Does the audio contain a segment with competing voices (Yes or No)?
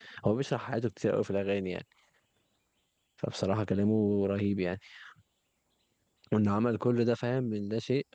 No